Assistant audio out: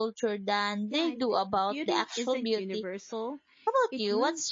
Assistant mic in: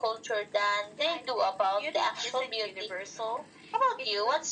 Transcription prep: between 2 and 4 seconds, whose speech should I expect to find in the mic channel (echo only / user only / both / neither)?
echo only